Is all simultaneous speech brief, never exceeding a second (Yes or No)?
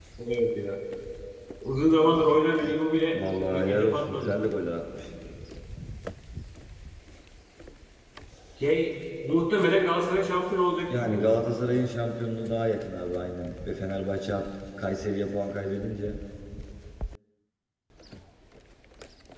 No